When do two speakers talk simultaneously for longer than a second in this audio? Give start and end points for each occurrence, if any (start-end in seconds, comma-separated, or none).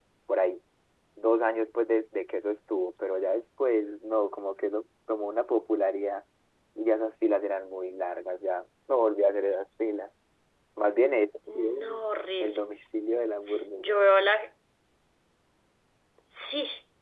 none